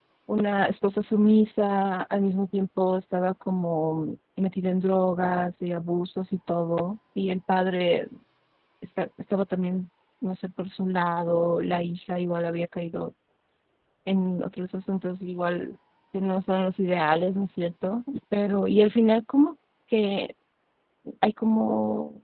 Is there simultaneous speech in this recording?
No

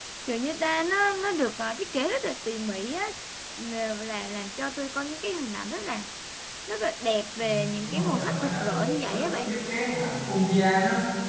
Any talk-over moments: Yes, from 7.4 s

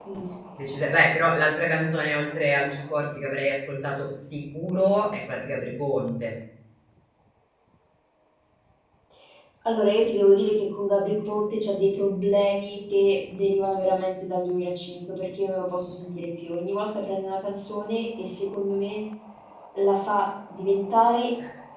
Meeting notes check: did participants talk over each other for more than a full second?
No

